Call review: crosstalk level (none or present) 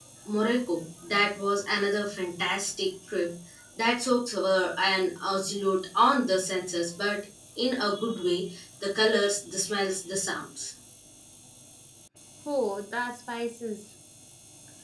none